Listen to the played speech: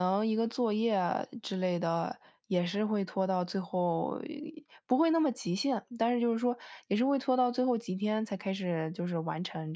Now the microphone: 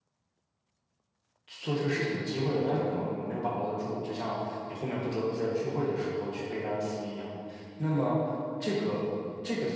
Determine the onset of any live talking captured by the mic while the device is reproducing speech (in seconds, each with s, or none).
1.4 s